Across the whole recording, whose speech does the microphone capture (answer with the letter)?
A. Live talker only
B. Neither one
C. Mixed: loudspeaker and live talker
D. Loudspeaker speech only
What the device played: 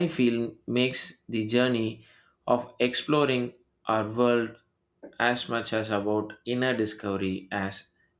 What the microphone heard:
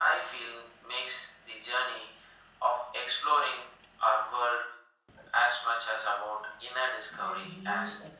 C